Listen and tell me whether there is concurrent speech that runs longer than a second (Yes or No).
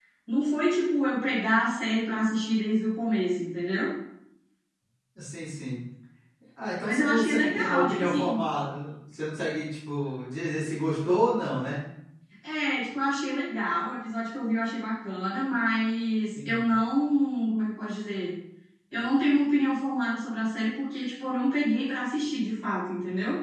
Yes